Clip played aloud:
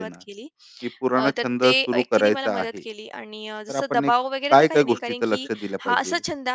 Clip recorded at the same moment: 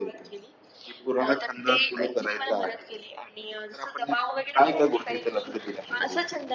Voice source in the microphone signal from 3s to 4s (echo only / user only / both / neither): echo only